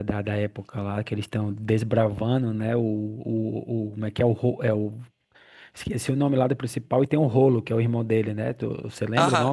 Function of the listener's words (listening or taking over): taking over